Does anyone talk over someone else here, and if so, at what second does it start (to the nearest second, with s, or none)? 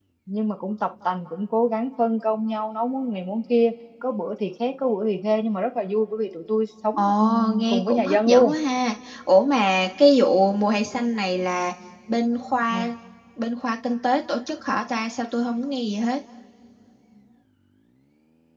7 s